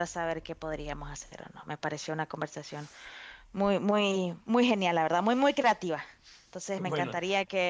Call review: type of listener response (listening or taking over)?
listening